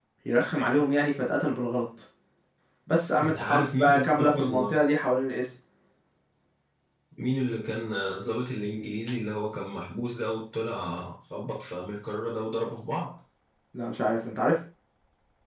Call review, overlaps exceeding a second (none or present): present